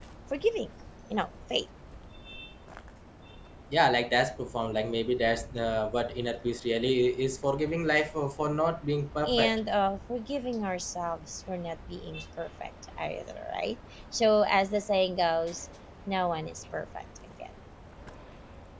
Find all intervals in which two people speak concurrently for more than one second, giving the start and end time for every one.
none

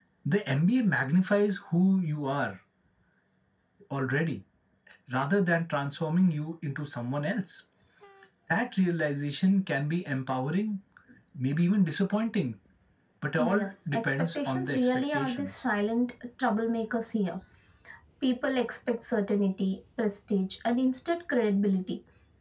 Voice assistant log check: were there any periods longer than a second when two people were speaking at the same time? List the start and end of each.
13.5-15.6

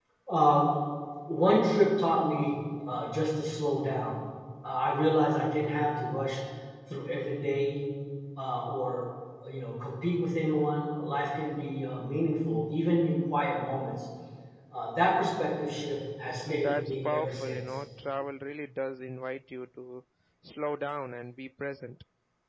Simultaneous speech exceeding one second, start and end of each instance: 16.5-17.8

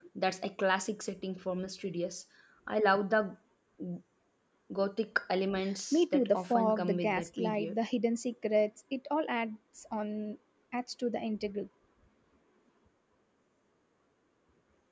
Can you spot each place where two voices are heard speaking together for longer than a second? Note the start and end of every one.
5.9-7.8

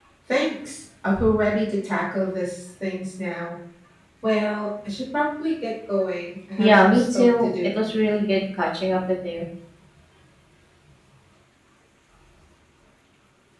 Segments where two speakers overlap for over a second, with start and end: 6.6-7.8

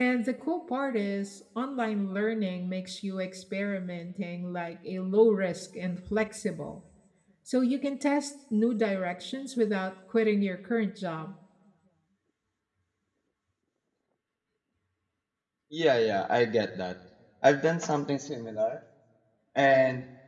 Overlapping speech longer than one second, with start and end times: none

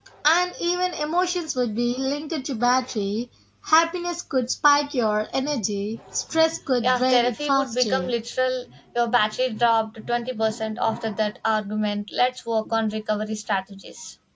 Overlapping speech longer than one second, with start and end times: 6.8-8.1

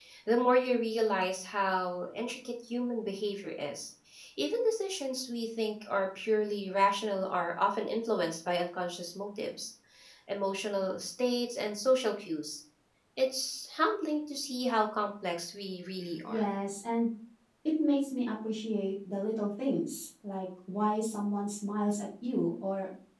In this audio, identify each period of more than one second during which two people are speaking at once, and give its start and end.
none

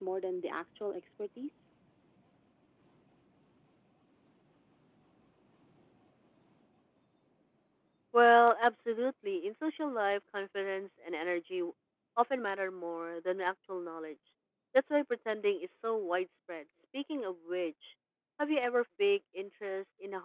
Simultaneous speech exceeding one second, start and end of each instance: none

